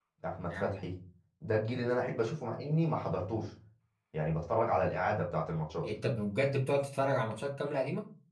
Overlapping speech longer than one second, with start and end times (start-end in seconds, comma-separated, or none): none